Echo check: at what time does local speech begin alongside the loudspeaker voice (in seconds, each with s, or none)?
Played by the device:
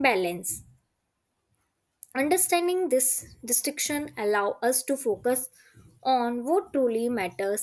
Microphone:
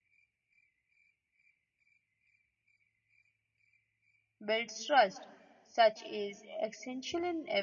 4.5 s